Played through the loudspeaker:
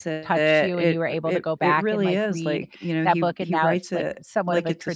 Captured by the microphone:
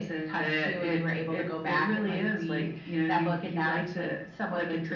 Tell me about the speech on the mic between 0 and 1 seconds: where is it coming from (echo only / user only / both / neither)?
echo only